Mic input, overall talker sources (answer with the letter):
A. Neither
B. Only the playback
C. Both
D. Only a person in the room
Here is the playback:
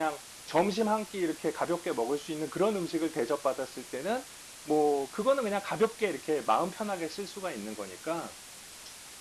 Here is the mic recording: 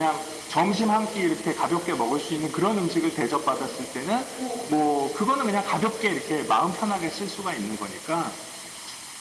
C